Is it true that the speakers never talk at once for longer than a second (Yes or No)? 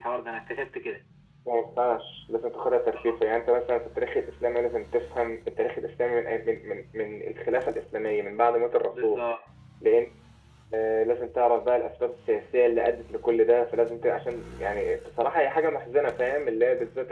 Yes